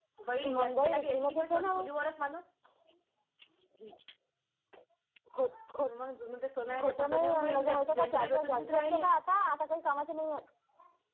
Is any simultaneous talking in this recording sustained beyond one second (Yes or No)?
Yes